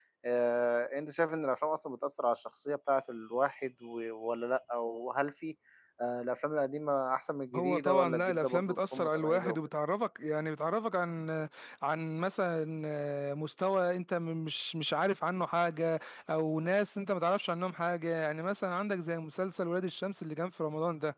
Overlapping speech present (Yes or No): Yes